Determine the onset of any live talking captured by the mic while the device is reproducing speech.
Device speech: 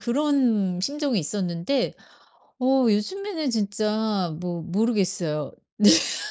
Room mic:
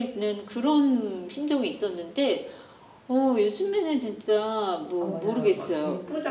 5.0 s

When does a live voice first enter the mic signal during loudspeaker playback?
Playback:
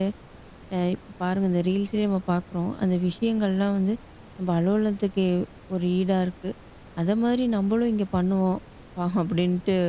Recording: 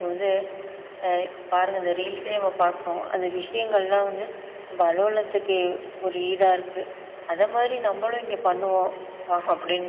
none

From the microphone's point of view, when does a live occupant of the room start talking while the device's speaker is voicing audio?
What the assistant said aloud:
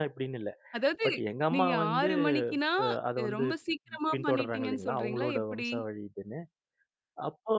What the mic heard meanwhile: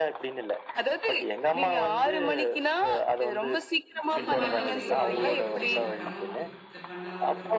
4.1 s

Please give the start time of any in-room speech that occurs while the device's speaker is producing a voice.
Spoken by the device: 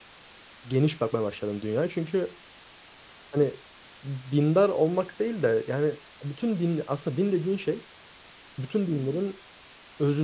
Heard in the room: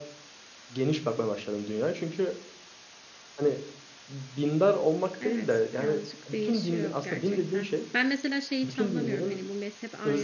5.2 s

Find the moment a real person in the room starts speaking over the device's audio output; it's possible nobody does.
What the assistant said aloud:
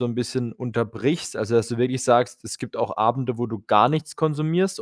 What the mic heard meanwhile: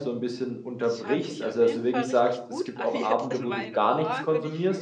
0.8 s

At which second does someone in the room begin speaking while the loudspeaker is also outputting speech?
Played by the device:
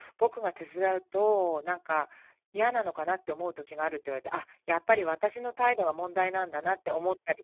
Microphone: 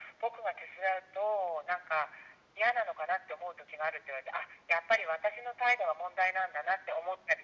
none

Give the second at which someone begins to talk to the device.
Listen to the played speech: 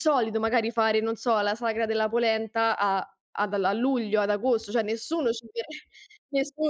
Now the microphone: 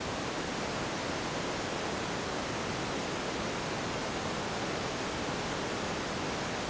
none

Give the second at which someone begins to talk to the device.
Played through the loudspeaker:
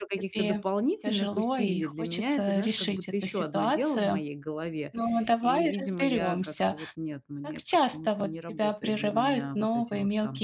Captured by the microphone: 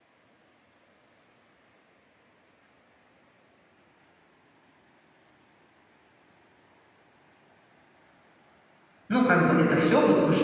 9.1 s

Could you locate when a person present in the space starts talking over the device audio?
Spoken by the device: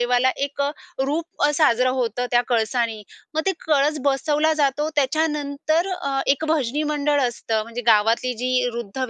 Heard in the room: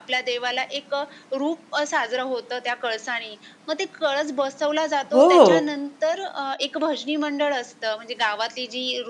5.1 s

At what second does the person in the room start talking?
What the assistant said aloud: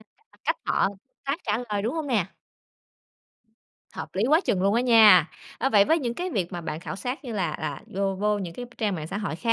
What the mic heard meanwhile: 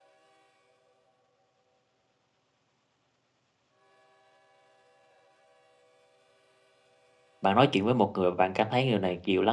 7.4 s

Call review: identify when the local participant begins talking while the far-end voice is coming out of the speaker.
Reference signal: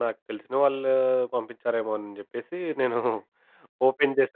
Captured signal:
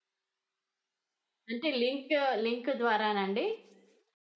1.5 s

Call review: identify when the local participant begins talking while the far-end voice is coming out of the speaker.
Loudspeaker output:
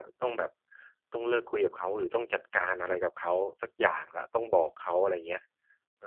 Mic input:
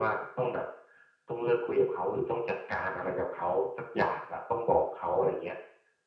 none

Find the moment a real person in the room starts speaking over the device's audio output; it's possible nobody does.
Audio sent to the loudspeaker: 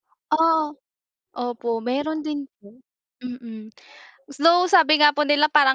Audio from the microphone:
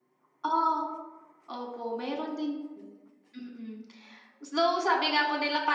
none

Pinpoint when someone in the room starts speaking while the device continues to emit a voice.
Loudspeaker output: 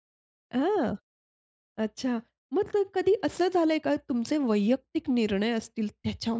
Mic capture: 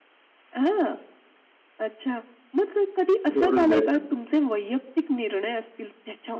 3.3 s

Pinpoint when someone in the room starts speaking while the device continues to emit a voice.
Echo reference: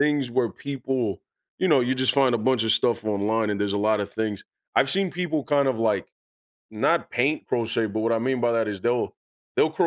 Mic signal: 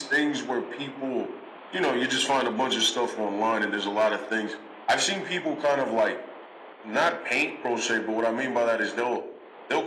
none

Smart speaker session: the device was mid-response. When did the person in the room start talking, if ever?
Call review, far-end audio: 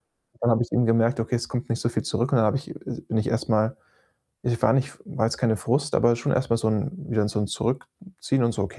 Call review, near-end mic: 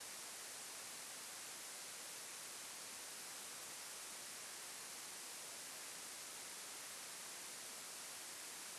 none

